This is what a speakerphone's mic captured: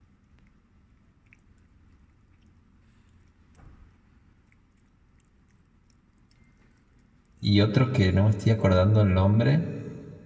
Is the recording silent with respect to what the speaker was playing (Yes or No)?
Yes